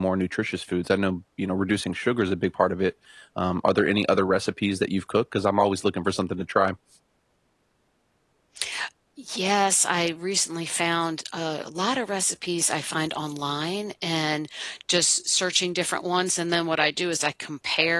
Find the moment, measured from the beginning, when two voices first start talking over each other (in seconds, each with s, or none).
none